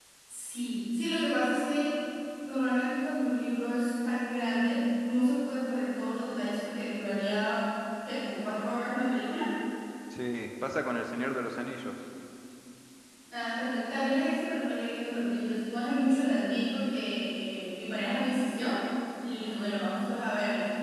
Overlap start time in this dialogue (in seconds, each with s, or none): none